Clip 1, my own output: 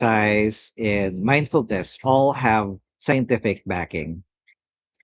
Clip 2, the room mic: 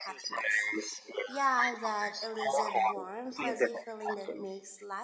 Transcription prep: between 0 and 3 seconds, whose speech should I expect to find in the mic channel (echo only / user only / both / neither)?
both